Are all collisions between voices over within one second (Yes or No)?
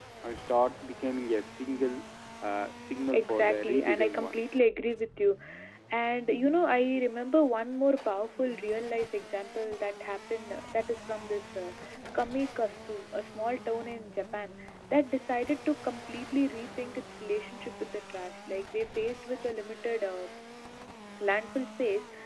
No